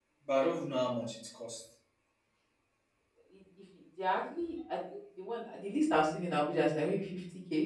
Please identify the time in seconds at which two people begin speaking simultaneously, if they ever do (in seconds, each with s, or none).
none